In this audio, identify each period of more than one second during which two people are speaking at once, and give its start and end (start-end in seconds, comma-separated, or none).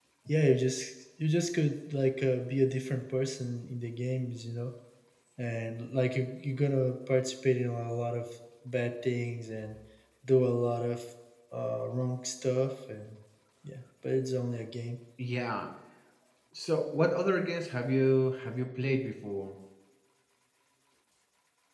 none